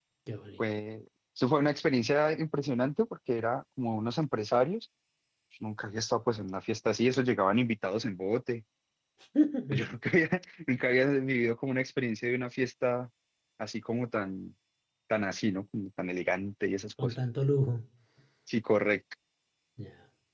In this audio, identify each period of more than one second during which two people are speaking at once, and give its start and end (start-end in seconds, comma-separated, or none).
none